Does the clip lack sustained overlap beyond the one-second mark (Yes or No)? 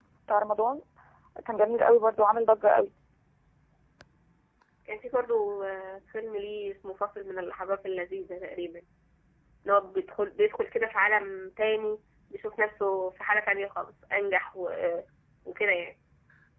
Yes